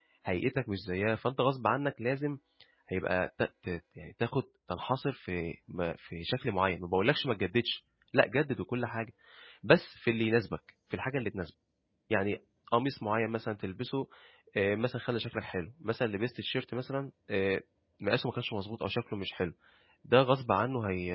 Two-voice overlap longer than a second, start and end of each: none

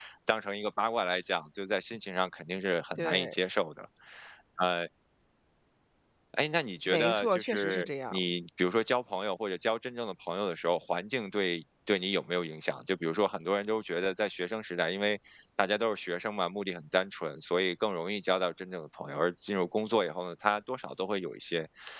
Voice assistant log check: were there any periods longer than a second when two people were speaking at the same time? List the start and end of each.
6.9-8.2

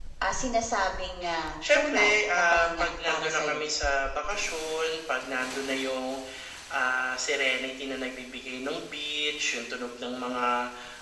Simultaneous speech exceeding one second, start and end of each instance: 1.7-3.6

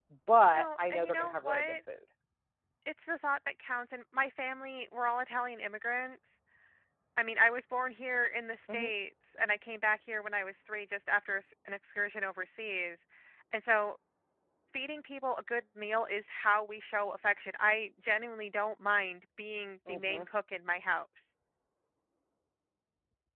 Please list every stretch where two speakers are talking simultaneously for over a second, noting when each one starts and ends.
0.5-1.8

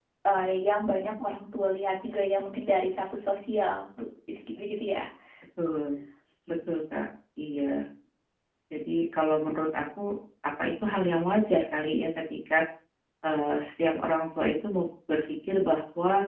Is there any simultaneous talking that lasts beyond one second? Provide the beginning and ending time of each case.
none

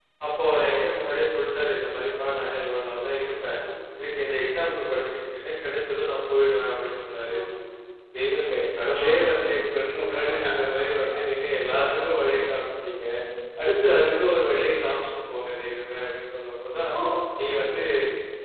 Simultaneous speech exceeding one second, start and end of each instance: none

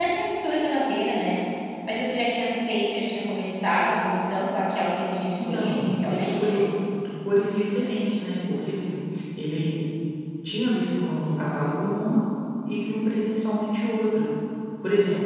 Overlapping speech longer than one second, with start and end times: 5.4-6.6

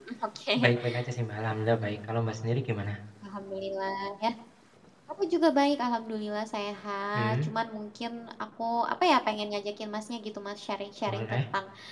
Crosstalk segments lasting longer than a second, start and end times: none

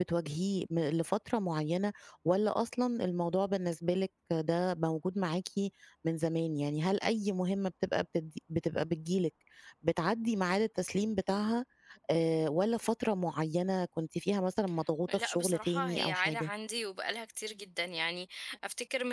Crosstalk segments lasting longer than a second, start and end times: 15.1-16.5

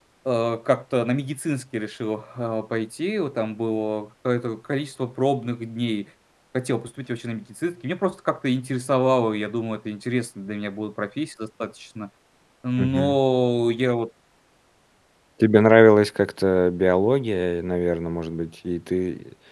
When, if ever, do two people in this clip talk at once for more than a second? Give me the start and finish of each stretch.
none

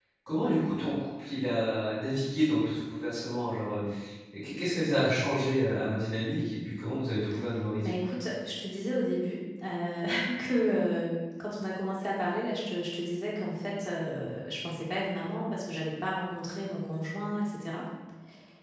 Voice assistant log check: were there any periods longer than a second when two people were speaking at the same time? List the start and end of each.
none

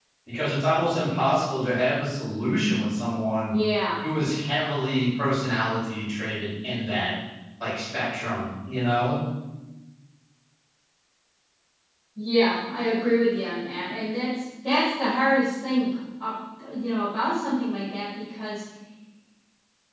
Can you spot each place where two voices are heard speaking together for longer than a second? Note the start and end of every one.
none

